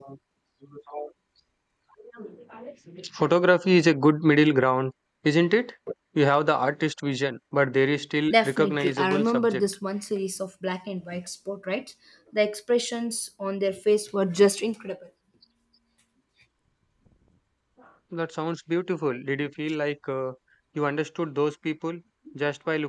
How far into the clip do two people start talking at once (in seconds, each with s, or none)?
8.3 s